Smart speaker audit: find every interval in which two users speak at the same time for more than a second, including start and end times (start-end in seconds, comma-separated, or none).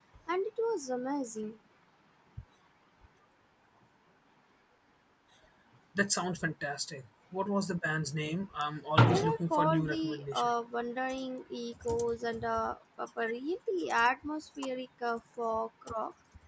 9.0-10.5